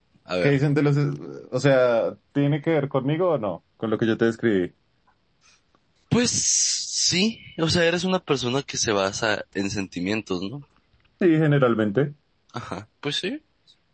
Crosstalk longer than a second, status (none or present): none